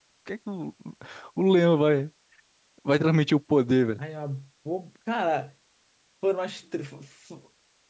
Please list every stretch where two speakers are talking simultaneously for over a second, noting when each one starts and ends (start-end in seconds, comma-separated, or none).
none